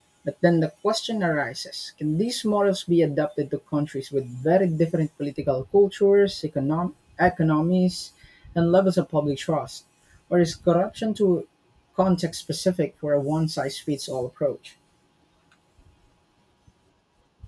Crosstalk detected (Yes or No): No